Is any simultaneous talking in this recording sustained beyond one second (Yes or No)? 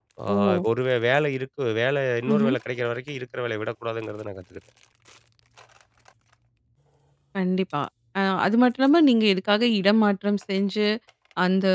No